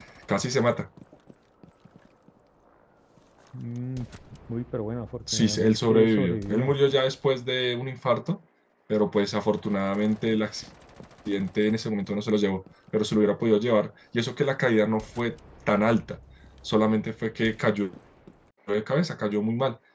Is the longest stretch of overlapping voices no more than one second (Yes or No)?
No